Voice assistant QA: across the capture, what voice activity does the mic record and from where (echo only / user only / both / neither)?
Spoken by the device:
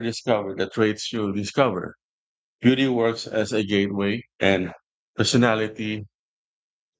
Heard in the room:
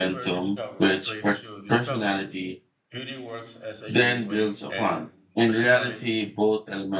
both